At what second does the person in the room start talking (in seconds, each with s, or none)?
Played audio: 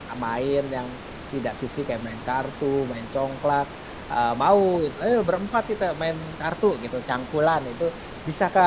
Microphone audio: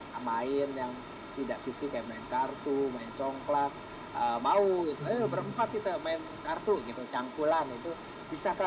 5.0 s